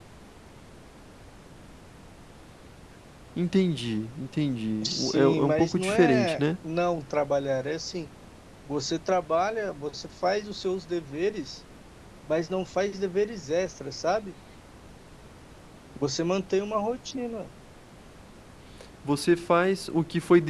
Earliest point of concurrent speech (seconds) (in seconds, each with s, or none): 4.8 s